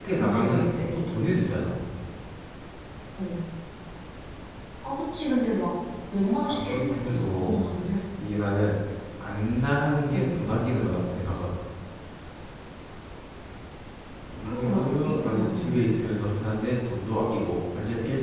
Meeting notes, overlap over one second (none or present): present